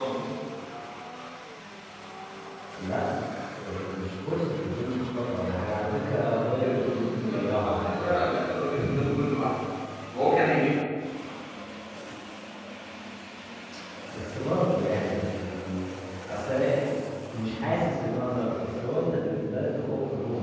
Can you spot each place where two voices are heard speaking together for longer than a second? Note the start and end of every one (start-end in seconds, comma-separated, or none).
6.6-8.3